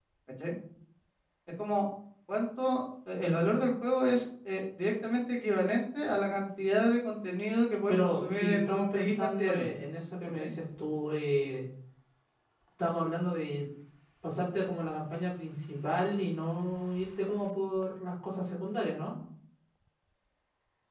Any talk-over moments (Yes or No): Yes